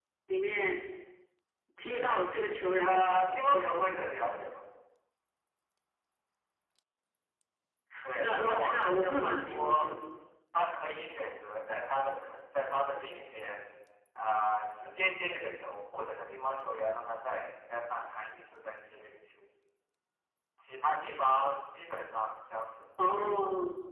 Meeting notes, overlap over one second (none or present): present